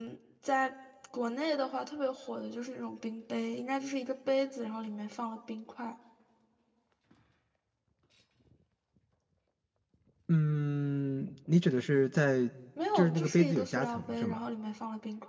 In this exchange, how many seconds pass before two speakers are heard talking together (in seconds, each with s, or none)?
12.9 s